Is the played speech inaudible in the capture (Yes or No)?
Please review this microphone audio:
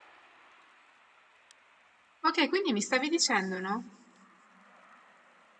Yes